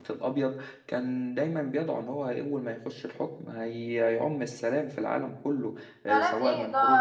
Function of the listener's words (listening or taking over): taking over